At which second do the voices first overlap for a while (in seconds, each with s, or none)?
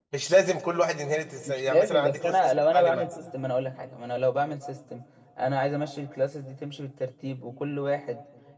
1.5 s